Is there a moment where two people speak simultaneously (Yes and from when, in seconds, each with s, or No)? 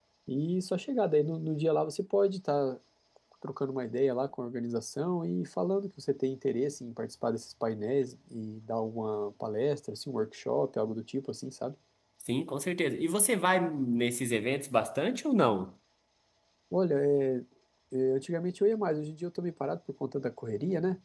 No